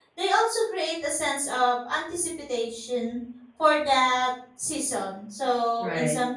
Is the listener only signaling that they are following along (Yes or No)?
Yes